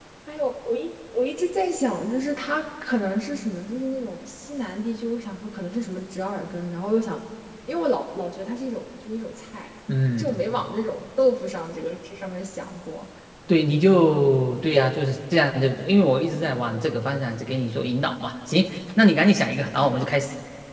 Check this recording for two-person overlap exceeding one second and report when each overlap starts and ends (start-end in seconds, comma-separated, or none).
none